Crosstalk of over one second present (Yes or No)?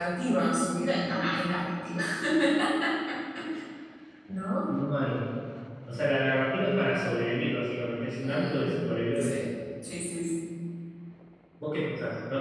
No